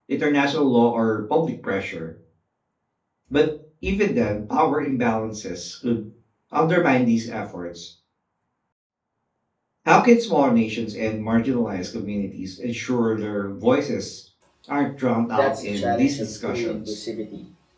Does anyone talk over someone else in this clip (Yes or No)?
Yes